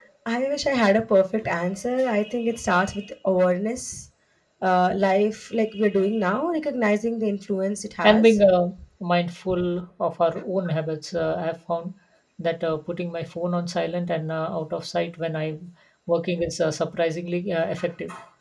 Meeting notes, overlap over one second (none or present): none